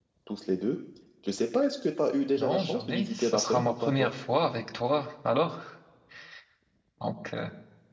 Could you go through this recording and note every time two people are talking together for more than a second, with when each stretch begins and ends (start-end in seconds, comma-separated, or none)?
2.4-4.1